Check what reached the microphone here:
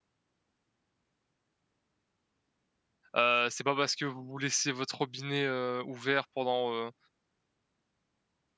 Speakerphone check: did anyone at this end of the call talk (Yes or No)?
Yes